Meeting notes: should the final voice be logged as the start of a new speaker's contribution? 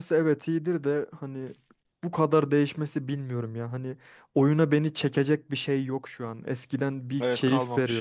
No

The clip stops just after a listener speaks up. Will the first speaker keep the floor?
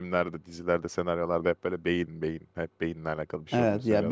No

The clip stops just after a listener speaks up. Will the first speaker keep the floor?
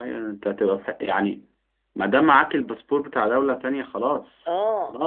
No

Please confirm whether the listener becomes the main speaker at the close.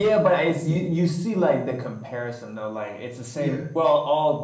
No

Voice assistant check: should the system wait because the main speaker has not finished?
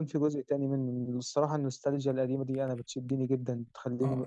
No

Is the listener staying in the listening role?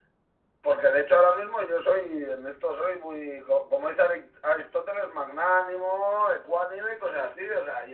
Yes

